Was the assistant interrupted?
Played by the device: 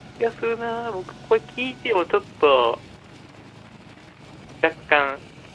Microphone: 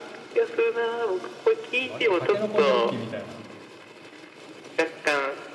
Yes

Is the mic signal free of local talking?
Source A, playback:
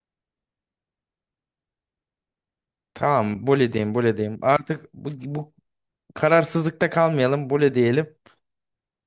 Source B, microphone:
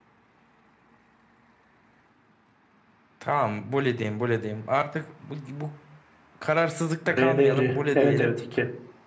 No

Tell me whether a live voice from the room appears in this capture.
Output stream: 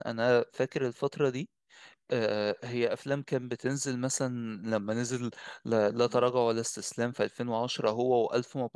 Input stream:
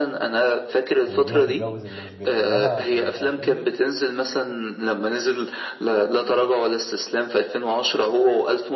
Yes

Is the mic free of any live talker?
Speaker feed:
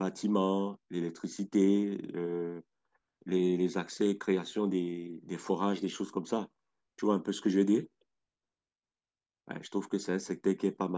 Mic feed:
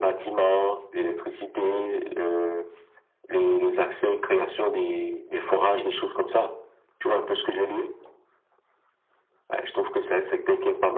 Yes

